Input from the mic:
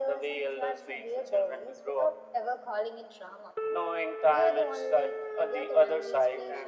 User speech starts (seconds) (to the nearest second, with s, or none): none